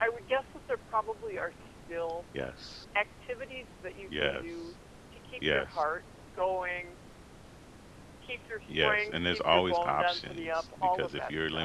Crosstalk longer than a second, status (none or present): present